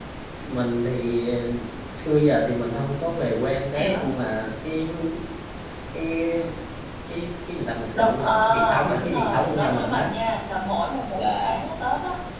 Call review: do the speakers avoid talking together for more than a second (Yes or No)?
No